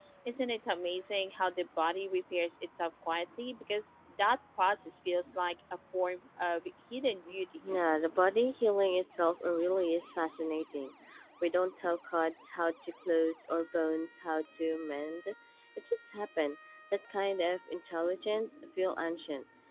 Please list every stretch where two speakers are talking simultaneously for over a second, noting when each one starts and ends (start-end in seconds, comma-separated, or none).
none